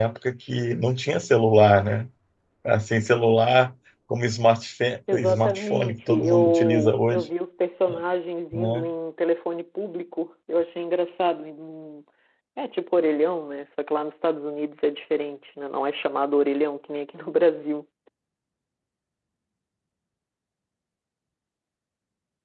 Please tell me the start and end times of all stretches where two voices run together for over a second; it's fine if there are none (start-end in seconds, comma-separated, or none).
5.1-7.3